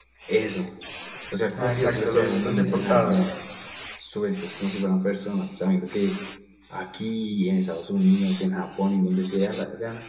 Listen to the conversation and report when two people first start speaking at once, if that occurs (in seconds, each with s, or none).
1.6 s